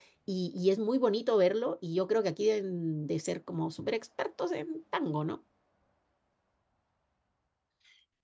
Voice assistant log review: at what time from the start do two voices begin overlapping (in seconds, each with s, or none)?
none